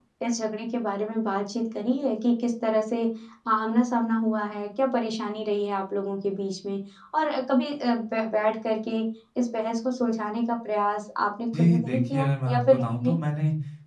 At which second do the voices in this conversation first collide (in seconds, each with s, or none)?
11.5 s